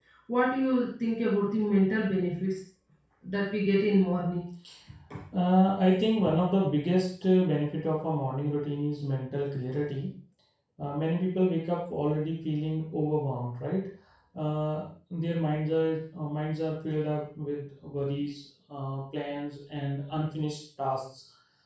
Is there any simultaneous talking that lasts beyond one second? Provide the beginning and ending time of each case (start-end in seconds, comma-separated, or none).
none